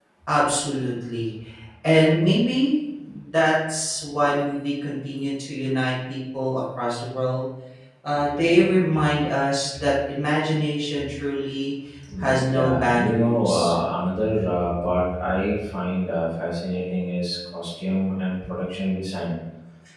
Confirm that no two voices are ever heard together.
No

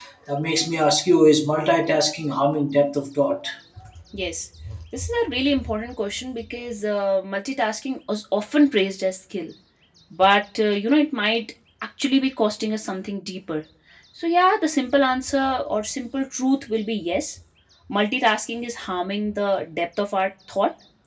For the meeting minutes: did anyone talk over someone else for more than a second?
No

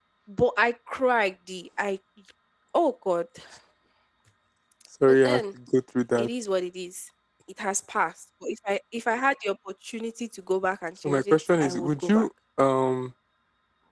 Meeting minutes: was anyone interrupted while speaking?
Yes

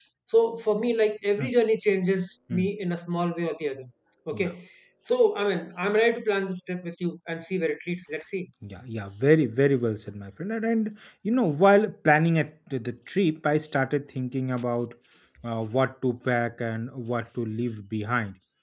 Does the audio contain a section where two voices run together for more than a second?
No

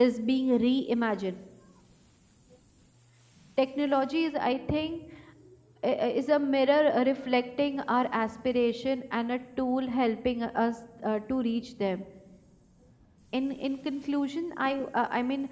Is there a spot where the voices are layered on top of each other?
No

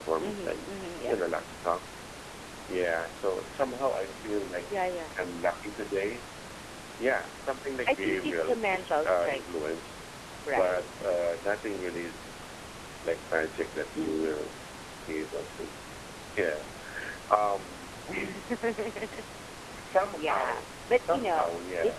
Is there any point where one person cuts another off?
Yes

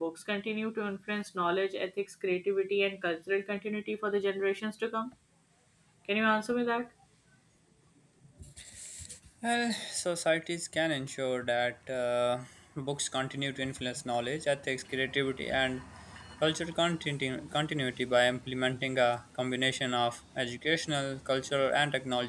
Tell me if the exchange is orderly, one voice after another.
Yes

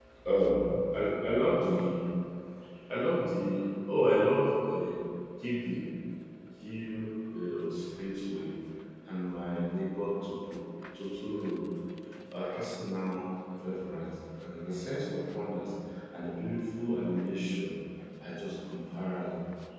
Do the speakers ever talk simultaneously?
No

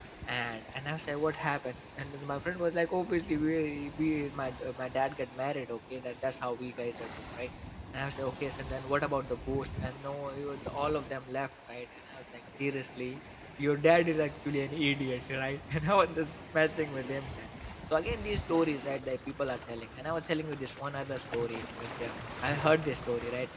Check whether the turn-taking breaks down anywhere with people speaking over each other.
No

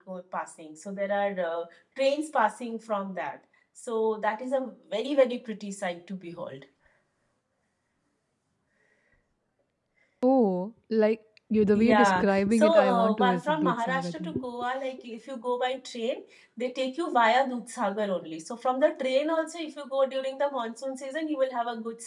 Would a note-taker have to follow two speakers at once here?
Yes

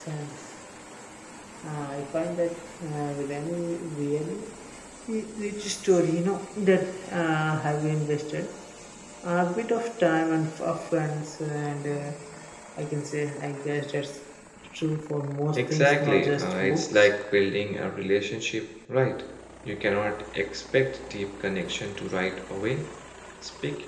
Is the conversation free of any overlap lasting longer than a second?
No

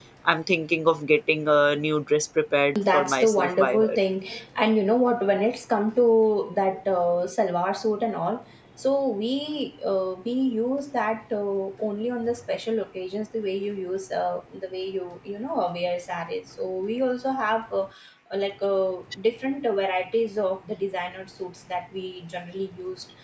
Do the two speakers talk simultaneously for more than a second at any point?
Yes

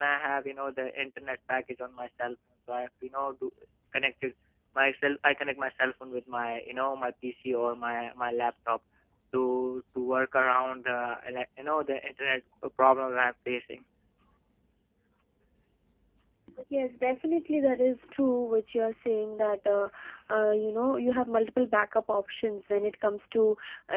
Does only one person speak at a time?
Yes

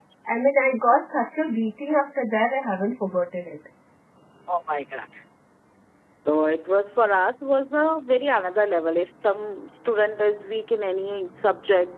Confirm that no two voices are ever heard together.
Yes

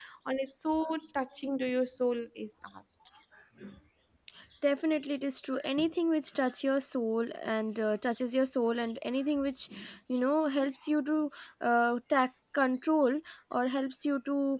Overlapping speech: No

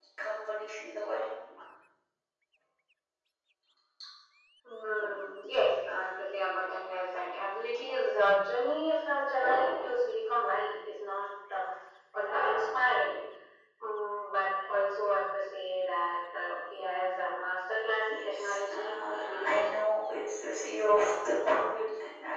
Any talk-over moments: Yes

